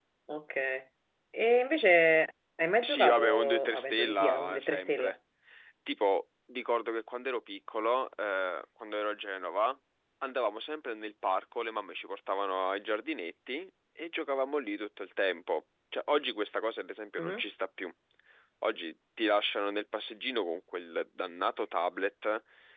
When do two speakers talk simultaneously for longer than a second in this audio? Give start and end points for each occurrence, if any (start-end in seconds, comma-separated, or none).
2.8-5.1